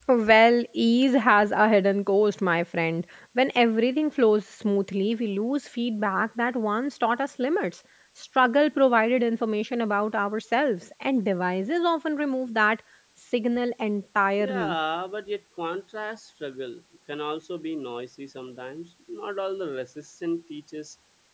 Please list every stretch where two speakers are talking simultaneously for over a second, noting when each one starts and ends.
none

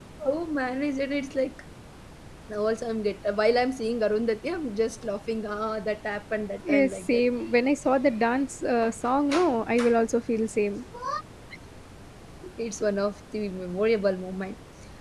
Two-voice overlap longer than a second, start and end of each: none

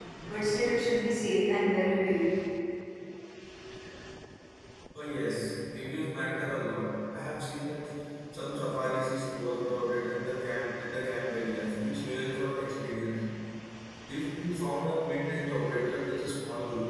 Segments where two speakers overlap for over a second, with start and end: none

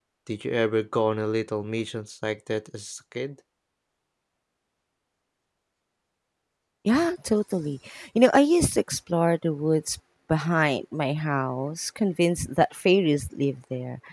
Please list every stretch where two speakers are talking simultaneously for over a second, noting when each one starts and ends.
none

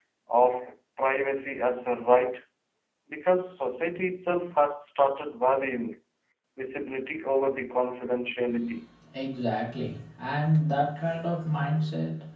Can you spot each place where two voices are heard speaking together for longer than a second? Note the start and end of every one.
none

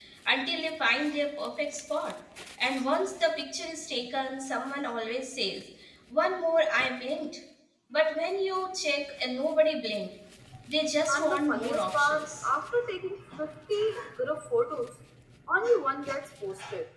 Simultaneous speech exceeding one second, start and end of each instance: 11.1-12.5

